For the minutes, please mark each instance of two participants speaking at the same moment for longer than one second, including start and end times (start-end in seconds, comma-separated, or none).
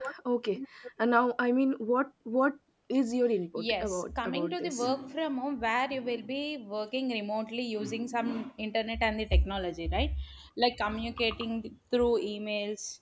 3.6-4.9